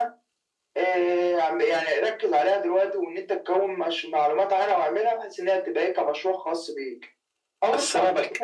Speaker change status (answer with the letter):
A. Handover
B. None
A